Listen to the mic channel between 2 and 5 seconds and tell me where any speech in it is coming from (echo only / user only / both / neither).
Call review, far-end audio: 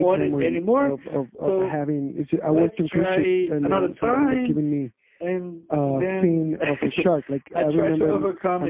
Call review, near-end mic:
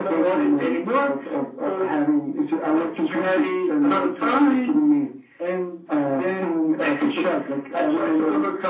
echo only